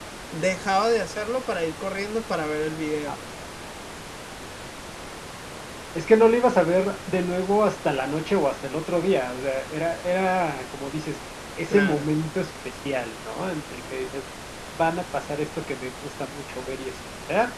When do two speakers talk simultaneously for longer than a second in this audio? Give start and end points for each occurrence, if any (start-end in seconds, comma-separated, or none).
none